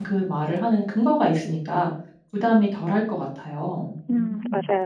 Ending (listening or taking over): taking over